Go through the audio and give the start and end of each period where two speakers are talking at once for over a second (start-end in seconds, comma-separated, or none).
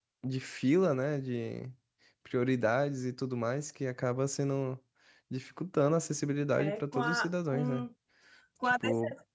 6.6-7.8